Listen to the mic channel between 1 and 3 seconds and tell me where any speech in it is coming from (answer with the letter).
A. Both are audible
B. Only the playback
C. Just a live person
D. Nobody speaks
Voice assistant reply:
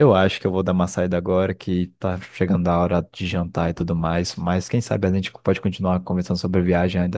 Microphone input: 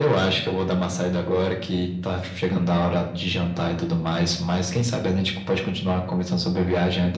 B